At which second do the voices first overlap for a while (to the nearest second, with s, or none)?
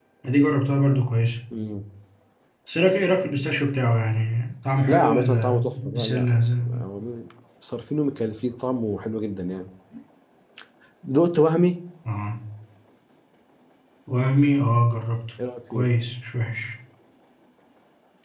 5 s